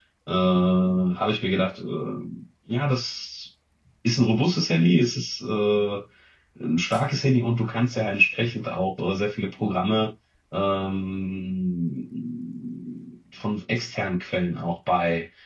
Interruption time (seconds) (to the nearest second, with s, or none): none